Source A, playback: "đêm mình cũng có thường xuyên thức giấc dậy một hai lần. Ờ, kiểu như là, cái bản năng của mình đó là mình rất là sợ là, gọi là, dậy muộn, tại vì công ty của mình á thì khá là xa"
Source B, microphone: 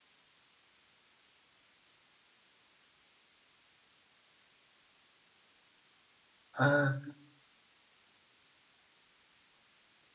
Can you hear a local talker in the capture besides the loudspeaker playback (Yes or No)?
Yes